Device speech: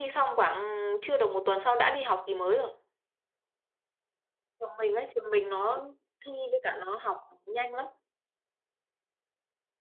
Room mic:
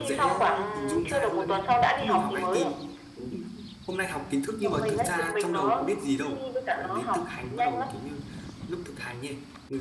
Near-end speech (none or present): present